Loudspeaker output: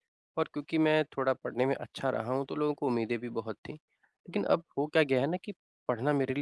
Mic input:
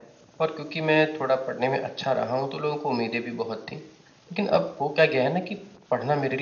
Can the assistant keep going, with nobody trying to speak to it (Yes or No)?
Yes